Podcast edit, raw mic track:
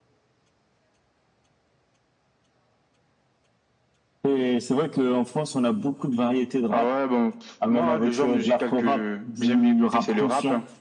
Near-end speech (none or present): none